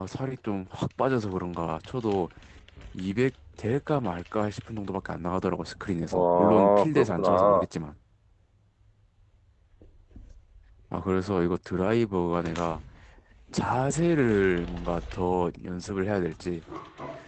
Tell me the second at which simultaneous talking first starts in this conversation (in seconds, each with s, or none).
6.1 s